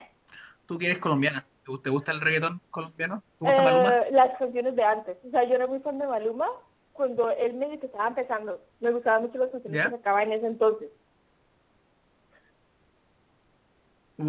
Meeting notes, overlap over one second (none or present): none